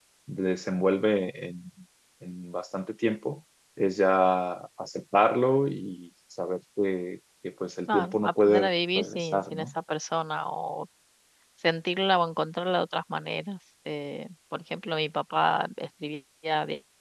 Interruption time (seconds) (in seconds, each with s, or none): 7.9 s